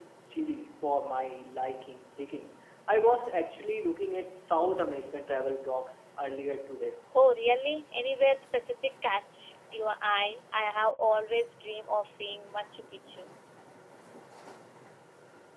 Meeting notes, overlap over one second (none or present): none